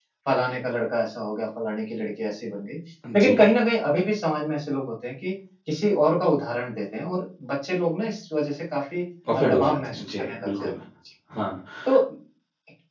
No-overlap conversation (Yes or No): No